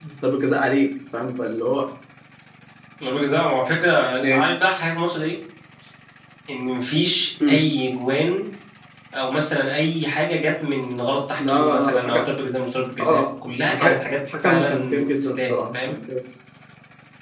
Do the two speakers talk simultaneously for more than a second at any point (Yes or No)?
Yes